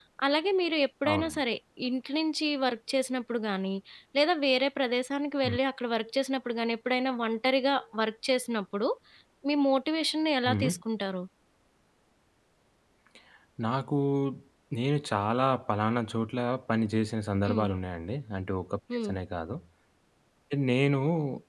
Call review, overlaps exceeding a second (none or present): none